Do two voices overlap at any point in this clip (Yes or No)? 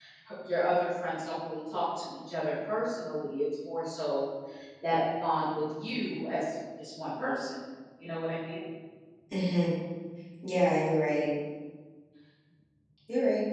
No